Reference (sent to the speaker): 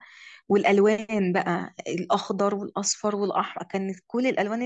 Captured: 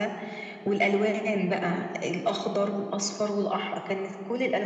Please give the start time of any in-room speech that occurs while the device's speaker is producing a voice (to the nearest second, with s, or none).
none